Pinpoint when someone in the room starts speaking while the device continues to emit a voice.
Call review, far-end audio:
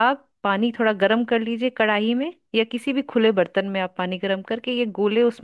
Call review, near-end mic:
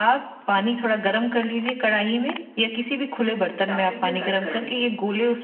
4 s

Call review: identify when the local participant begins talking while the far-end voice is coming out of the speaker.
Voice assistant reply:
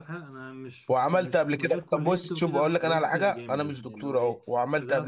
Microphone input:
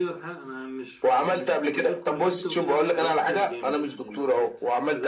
none

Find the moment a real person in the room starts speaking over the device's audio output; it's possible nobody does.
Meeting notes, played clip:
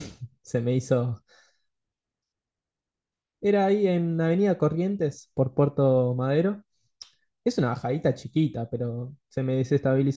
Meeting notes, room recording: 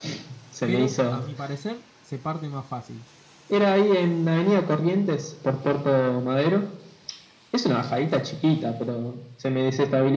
1 s

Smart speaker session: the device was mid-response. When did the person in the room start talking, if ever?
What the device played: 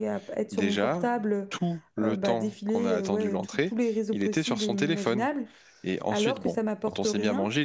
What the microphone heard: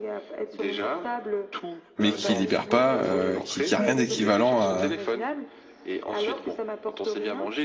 2 s

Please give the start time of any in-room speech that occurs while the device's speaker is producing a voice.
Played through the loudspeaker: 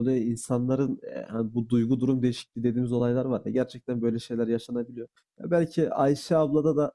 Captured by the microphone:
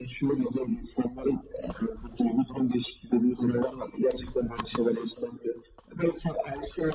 none

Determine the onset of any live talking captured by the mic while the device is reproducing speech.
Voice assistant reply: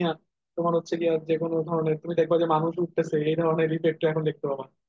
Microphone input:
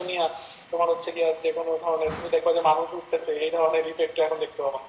none

